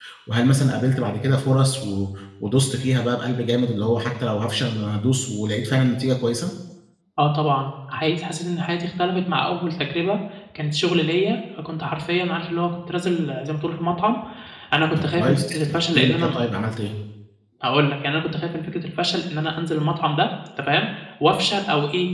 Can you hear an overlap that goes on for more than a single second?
Yes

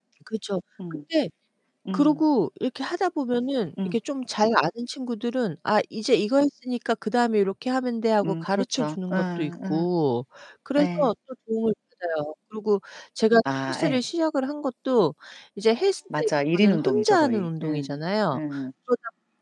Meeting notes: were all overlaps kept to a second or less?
No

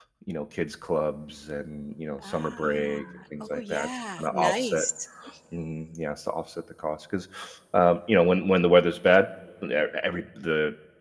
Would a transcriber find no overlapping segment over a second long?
No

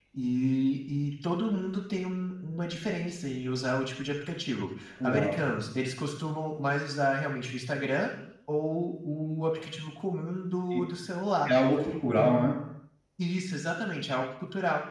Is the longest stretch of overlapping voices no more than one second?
Yes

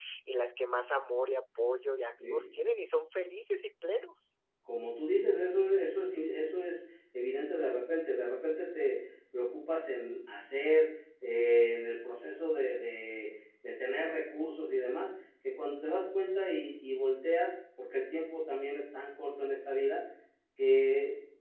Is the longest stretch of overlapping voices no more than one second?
Yes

